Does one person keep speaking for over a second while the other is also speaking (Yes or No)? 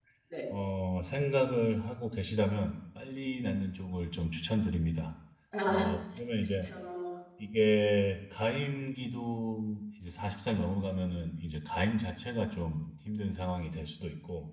No